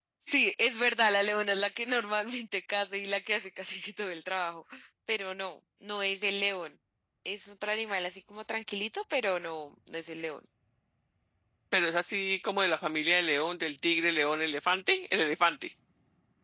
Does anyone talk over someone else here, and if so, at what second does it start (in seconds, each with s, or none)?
none